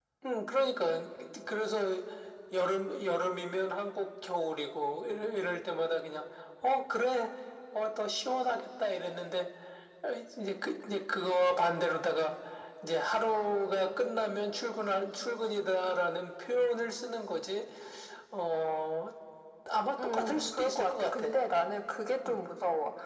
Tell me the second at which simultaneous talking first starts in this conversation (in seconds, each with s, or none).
20.0 s